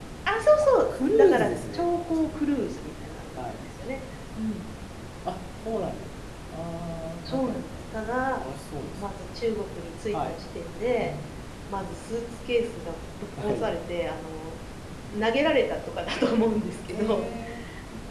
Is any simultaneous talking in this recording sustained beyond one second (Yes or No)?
Yes